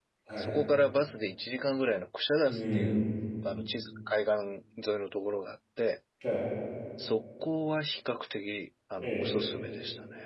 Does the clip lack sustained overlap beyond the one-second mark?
Yes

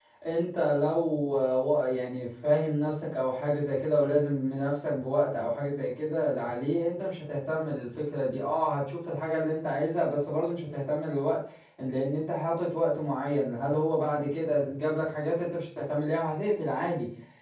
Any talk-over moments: No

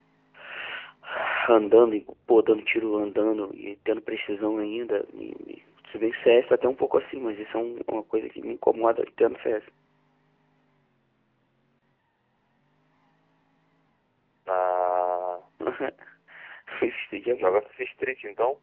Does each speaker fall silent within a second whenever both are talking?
Yes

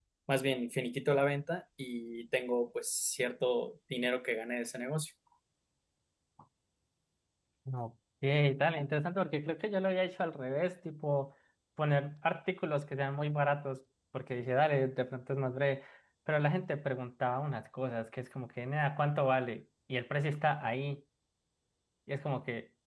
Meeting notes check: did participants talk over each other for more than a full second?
No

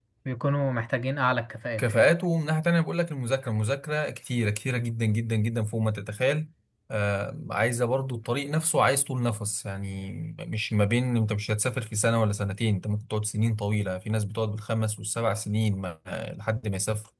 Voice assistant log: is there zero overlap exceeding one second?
Yes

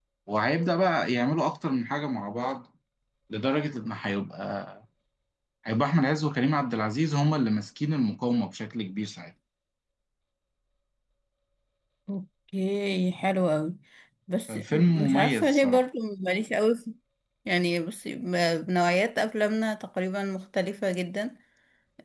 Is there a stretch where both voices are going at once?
Yes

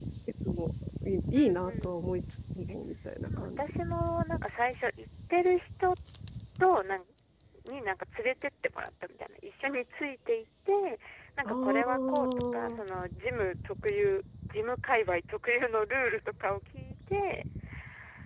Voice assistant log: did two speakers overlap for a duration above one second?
Yes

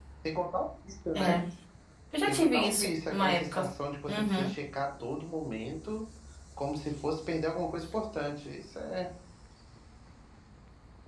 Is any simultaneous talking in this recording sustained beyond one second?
Yes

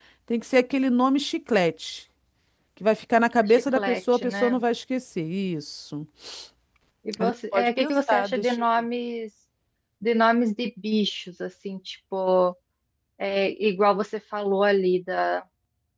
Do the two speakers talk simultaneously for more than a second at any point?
Yes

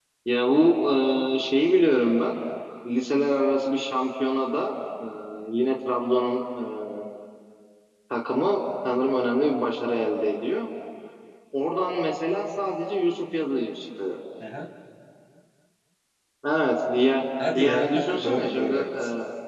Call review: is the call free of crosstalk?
No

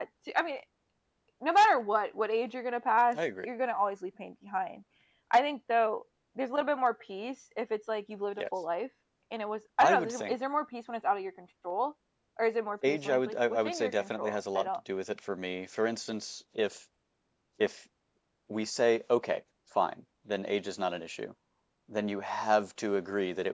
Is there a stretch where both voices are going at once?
Yes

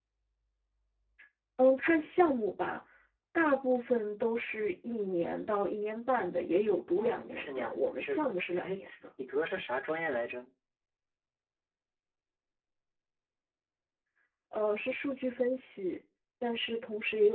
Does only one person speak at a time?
No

